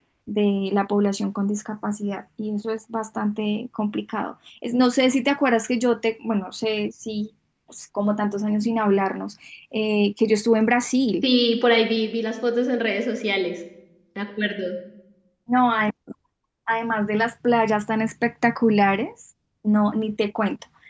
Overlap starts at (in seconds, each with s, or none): none